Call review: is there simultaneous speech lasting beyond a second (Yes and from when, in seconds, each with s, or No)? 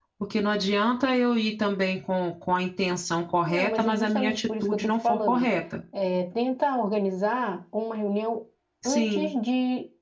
Yes, from 3.4 s